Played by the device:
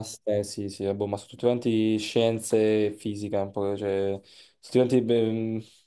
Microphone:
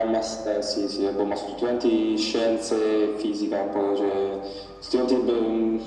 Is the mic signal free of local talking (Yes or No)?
Yes